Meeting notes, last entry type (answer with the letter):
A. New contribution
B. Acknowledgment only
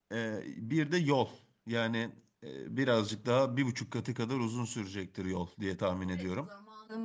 A